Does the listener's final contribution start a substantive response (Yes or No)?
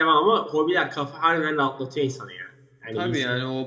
Yes